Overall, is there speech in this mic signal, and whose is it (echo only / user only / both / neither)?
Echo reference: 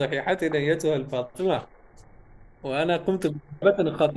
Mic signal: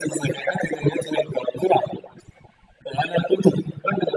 echo only